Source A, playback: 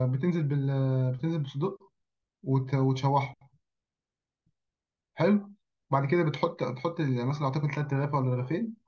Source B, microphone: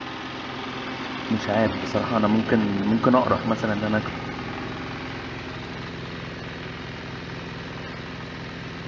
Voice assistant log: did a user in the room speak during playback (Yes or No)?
Yes